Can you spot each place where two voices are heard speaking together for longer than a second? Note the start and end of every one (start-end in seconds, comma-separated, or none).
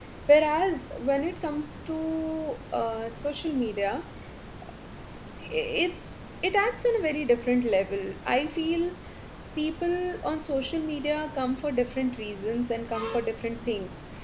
none